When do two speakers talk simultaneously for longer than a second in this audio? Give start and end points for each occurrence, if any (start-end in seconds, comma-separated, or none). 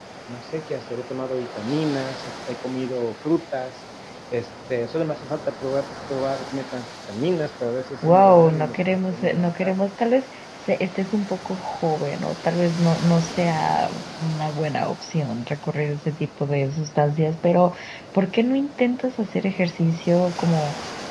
8.0-9.7